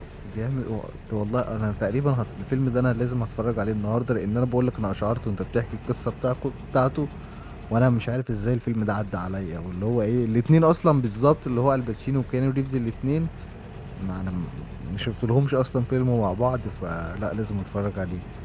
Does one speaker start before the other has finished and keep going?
No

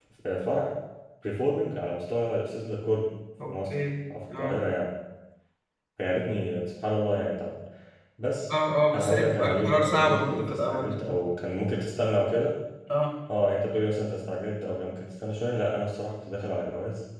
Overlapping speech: Yes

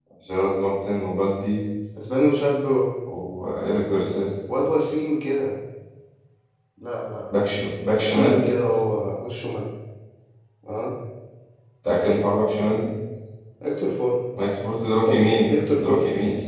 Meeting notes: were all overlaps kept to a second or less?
No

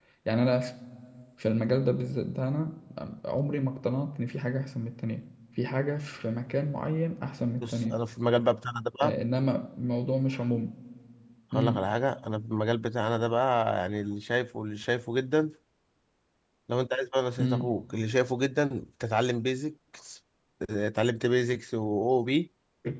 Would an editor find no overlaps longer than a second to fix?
Yes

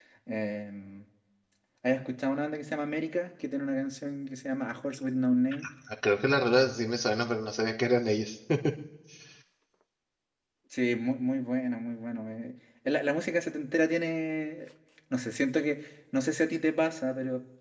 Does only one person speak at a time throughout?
Yes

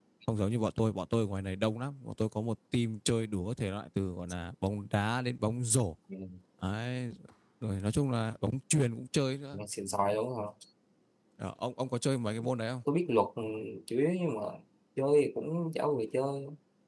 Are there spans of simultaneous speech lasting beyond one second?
No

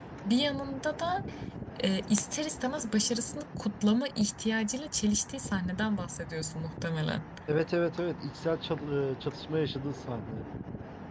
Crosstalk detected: No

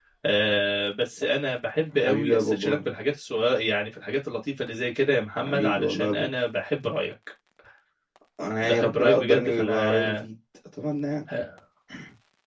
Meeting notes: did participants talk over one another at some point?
Yes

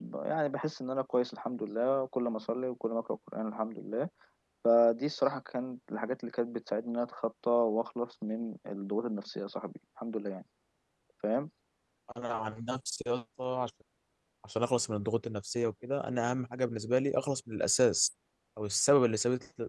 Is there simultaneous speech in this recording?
No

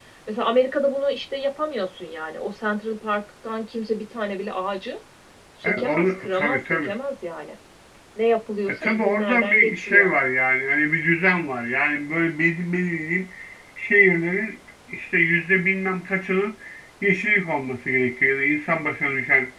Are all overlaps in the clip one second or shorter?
No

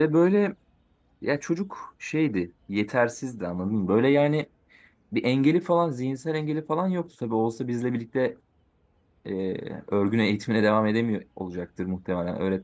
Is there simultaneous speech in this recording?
No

